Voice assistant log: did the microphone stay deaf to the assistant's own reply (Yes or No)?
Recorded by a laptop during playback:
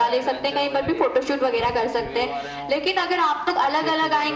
No